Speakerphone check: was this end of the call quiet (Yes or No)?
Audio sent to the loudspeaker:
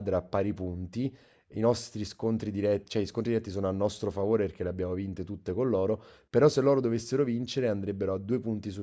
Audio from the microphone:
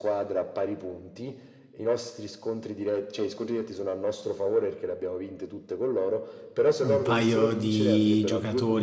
No